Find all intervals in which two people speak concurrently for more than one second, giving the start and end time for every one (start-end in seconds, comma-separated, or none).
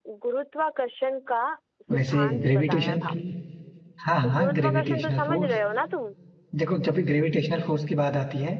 1.9-3.1, 4.2-5.5